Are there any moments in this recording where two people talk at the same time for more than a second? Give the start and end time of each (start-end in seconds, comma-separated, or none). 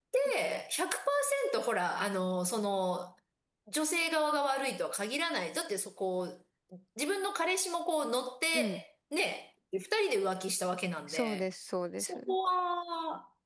none